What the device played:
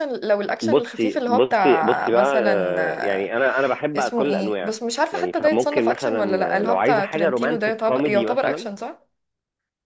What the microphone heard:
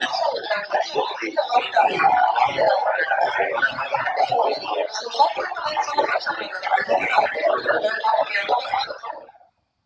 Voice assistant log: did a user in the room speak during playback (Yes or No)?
No